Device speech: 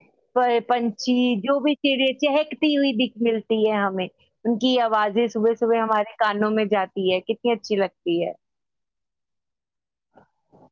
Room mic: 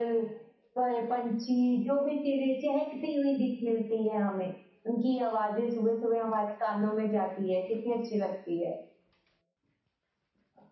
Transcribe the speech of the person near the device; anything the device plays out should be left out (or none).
none